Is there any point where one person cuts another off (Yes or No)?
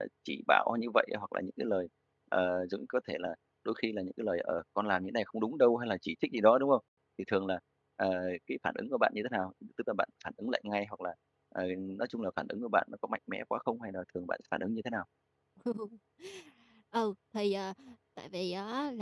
No